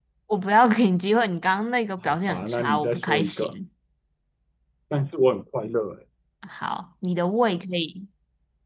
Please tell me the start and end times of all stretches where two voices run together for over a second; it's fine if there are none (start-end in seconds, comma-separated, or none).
2.1-3.5